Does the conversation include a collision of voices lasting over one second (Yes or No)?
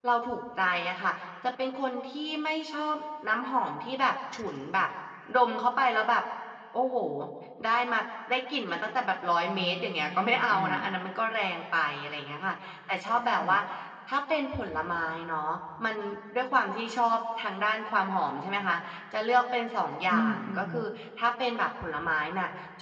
Yes